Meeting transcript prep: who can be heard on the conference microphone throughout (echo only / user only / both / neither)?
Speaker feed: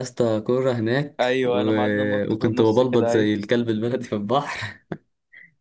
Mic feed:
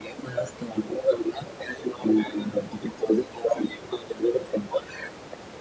echo only